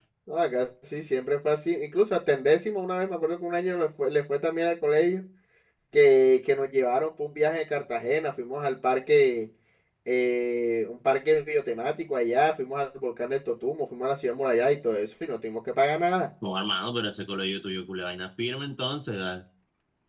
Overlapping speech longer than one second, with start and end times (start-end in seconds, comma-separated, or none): none